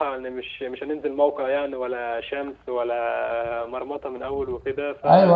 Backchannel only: No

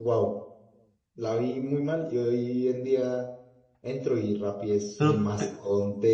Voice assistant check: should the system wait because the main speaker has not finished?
Yes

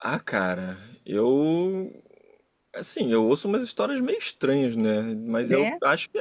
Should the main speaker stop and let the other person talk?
No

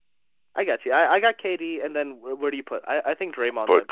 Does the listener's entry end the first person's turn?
Yes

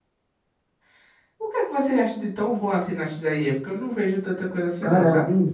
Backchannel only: No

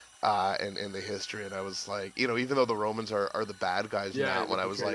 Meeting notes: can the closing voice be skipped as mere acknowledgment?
No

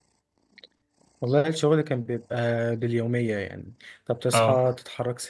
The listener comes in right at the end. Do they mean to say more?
No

